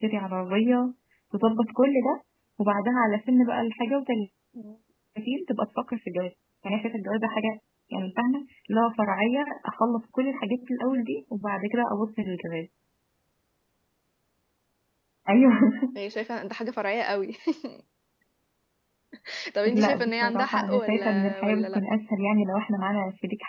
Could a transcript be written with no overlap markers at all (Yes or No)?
No